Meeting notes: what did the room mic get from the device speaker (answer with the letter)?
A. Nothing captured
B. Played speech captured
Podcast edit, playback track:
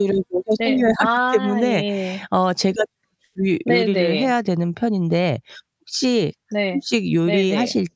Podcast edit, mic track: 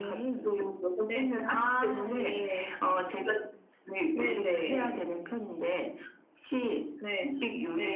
B